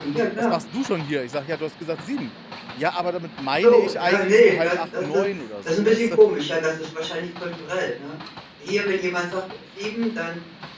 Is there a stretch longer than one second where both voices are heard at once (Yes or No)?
Yes